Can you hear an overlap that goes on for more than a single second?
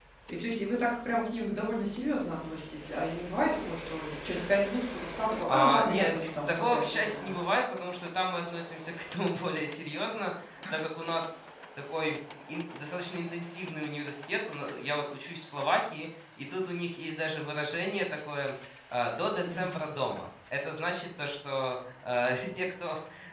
Yes, from 5.5 s

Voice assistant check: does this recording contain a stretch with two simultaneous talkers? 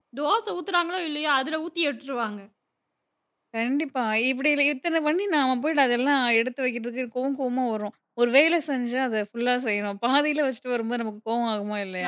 No

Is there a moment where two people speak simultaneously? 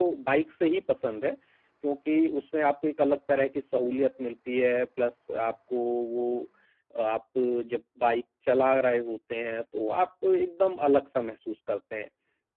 No

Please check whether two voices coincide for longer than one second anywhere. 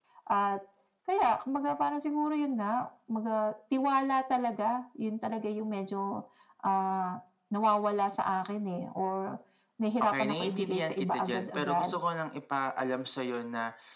Yes, from 10.0 s

